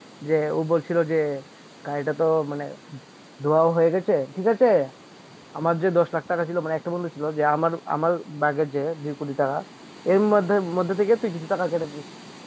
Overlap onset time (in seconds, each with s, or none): none